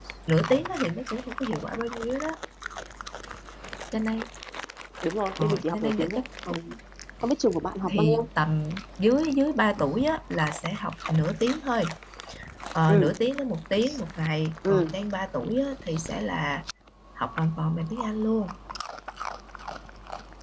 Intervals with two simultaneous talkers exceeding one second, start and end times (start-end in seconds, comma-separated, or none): 5.4-6.6